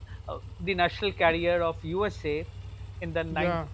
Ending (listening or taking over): listening